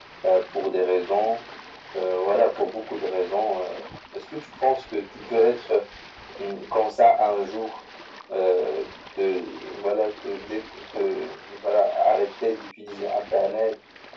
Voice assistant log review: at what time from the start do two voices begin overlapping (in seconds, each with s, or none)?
none